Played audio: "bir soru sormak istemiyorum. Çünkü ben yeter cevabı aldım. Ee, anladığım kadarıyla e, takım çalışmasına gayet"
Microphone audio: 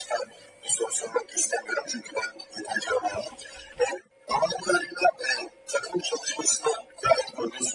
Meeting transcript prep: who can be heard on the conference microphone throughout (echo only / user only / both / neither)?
echo only